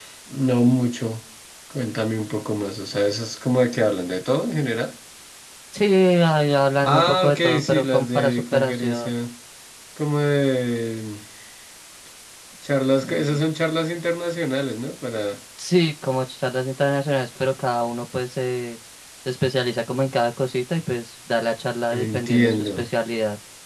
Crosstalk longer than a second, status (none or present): present